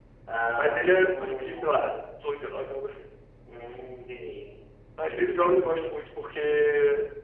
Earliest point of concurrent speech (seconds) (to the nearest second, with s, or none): 1 s